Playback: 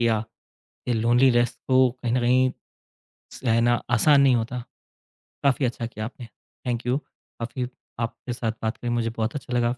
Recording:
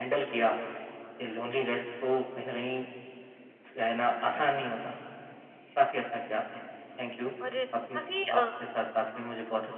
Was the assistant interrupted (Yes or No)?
Yes